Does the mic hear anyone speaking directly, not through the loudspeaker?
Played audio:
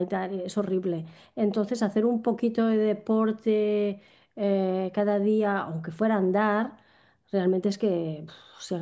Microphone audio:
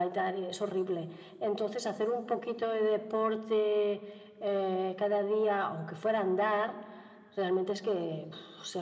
No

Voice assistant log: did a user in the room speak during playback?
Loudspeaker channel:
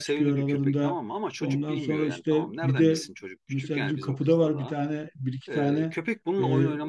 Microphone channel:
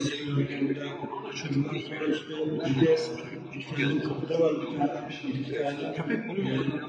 Yes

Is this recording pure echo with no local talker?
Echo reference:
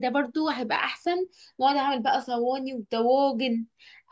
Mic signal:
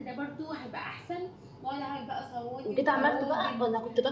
No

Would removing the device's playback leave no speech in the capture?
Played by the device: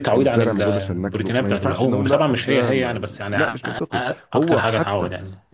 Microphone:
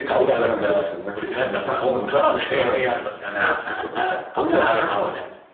Yes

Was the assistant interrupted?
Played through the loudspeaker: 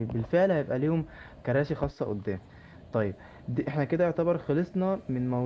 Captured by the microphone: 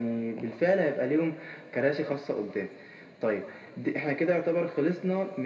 No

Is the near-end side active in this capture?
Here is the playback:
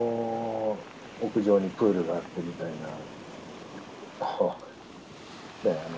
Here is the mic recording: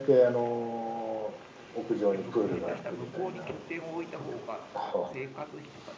Yes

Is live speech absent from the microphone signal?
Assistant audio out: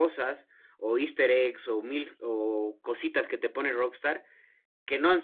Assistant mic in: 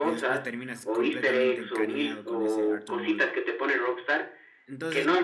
No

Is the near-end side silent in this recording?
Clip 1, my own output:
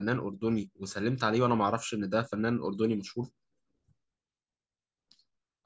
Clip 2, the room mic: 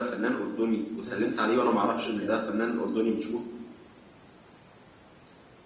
No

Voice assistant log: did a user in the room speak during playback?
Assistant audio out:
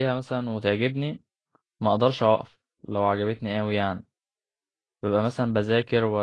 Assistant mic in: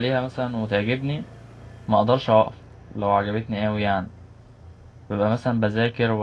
No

